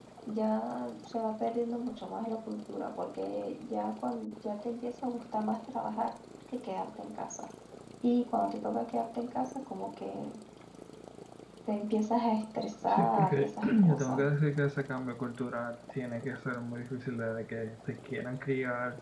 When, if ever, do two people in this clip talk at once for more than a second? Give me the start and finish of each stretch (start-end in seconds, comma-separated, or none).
12.9-14.2